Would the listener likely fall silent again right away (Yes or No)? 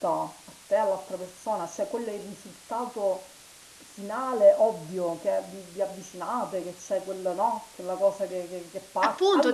No